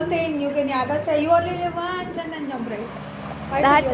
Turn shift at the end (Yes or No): Yes